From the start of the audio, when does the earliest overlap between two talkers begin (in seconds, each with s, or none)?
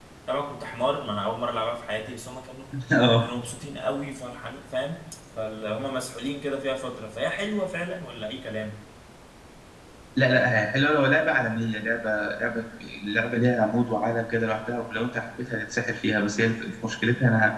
none